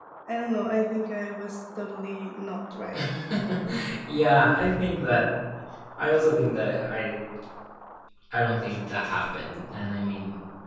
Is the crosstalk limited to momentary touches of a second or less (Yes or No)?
Yes